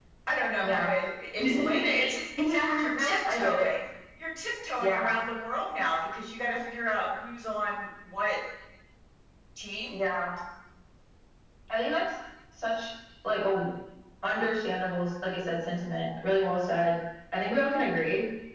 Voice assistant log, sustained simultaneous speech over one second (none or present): present